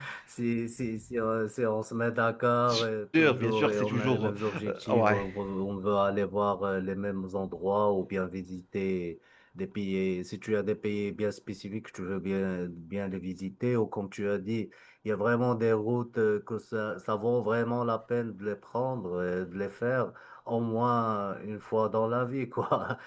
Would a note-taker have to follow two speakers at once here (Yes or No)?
Yes